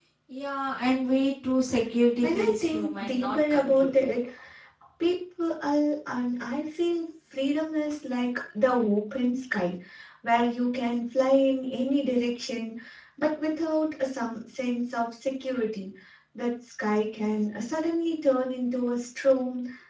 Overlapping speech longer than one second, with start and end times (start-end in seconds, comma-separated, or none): 2.2-4.0